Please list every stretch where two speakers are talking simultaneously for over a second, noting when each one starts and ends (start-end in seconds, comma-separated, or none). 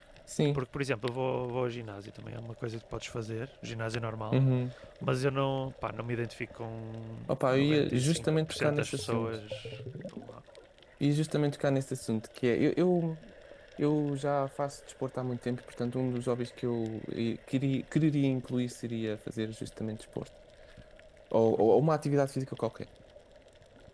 7.3-9.4